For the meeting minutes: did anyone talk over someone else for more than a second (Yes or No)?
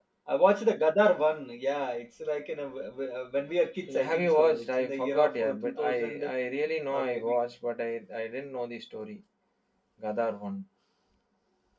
Yes